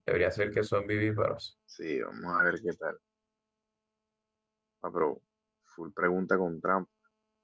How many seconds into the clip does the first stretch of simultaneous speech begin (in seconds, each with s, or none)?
none